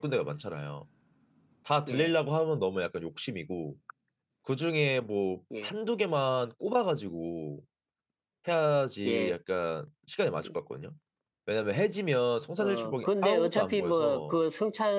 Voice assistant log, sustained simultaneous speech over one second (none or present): present